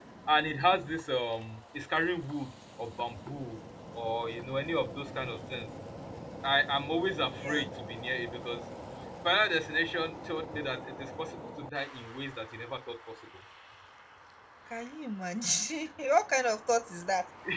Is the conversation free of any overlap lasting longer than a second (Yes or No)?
Yes